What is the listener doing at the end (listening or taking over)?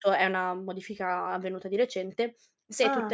listening